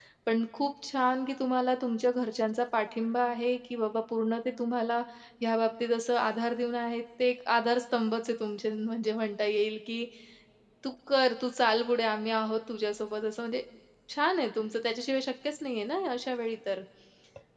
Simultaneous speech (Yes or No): No